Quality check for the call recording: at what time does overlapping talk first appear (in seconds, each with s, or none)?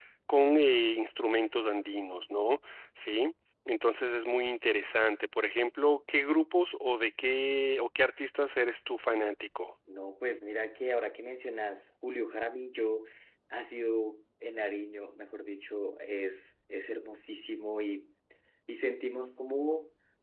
none